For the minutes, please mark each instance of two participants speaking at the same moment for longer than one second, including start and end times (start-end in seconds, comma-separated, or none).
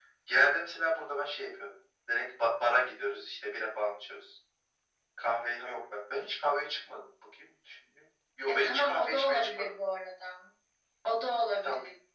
8.5-9.8